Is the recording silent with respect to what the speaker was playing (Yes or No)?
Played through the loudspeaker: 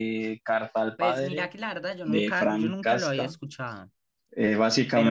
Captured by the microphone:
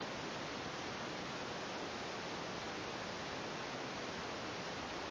Yes